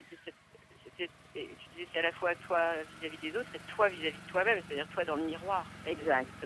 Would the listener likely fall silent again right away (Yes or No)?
No